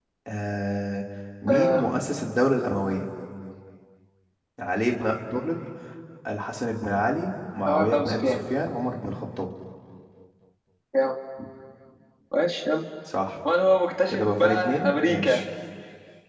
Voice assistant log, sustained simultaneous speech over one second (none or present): present